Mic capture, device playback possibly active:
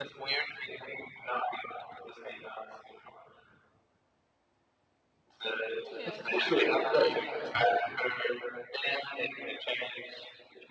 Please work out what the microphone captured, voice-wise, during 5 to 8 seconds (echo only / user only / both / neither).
both